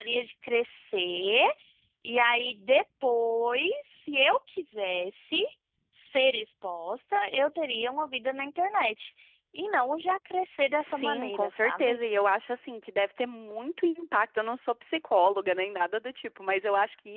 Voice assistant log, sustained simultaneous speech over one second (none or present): present